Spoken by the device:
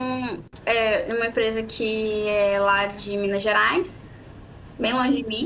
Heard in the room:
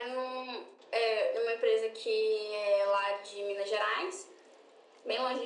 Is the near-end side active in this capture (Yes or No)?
No